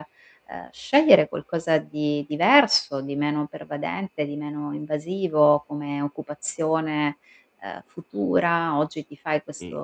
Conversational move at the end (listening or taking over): listening